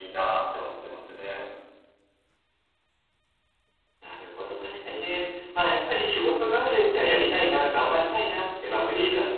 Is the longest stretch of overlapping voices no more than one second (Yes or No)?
Yes